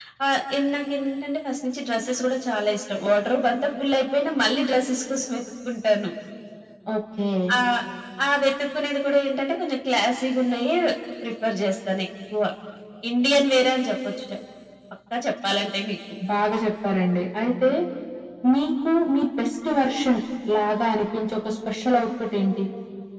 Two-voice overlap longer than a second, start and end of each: none

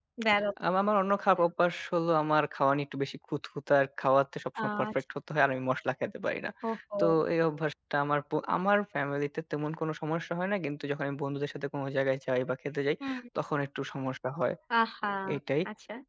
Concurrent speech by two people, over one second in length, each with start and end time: none

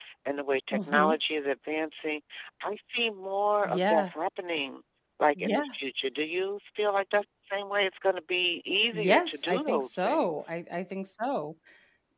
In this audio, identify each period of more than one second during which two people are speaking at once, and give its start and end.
8.9-10.5

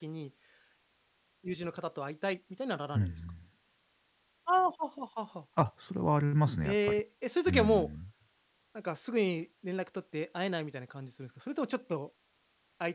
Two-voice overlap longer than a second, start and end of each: none

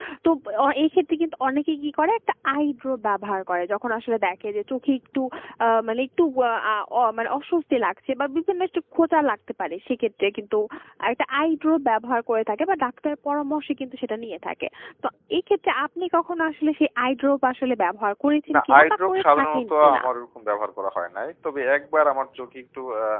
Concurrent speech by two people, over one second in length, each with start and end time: 18.5-20.0

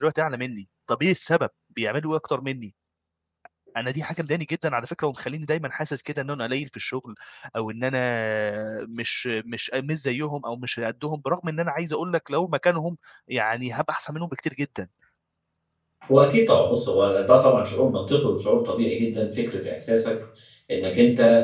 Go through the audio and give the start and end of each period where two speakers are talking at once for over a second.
none

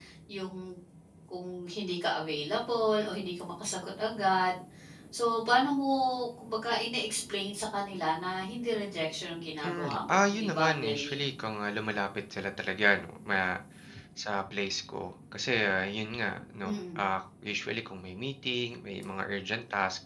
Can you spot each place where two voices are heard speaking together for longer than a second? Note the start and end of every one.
9.7-11.2

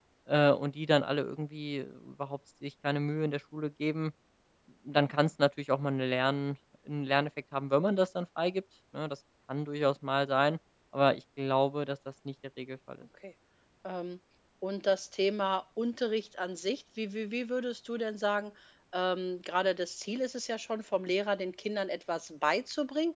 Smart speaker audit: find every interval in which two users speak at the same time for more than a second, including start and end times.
none

